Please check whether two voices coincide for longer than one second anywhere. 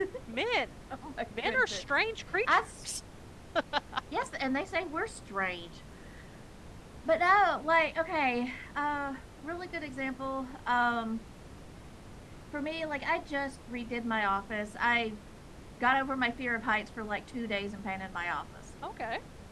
No

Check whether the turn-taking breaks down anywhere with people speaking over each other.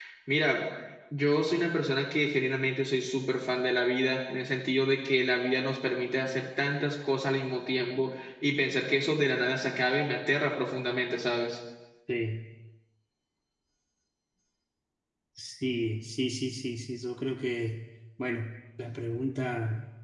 No

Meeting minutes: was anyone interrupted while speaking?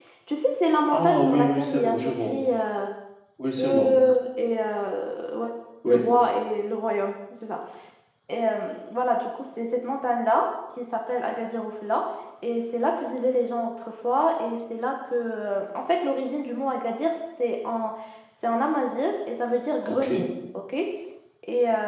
Yes, from 0.9 s

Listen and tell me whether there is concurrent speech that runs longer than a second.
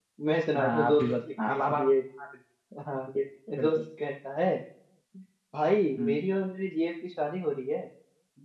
Yes, from 0.6 s

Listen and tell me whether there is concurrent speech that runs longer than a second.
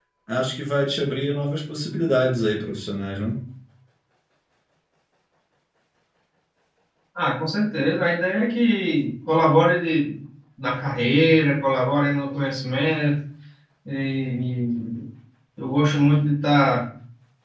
No

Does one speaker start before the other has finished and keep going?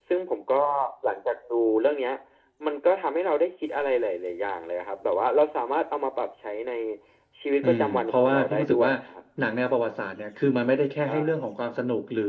Yes, from 7.6 s

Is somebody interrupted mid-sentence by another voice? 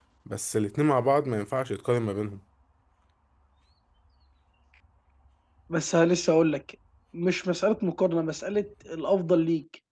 No

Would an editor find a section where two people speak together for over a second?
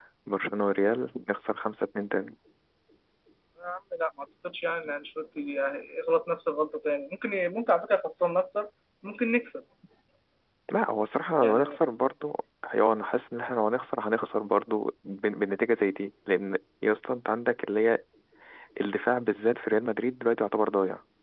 No

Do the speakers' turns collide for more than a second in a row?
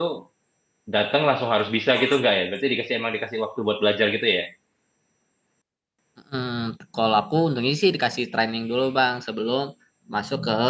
No

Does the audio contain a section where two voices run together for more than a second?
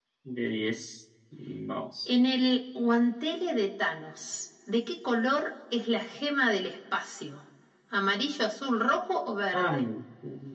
No

